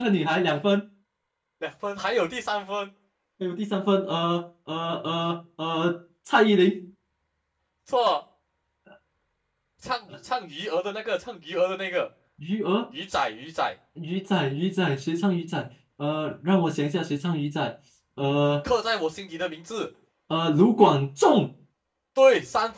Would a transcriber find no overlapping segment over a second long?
Yes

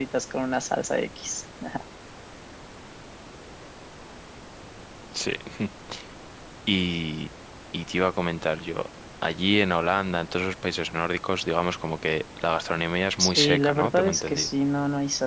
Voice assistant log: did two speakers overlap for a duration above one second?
Yes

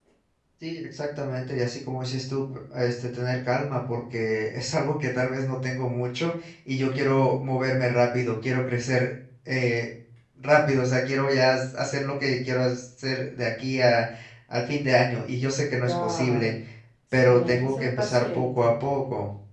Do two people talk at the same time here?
Yes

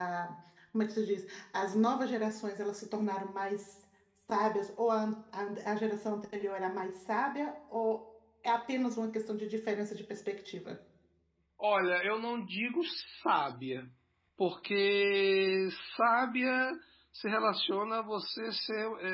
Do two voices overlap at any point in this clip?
No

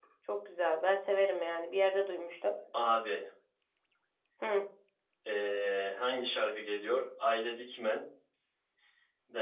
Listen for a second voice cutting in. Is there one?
No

